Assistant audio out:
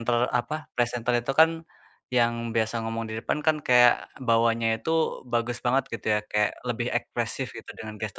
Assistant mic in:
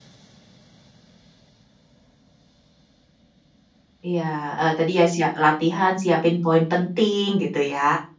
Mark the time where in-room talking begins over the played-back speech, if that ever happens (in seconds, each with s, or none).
4.1 s